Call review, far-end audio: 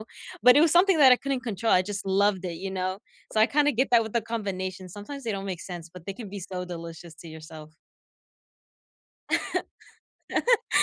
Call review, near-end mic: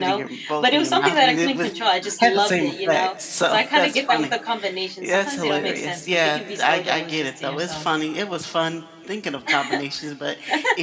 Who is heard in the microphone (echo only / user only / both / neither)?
both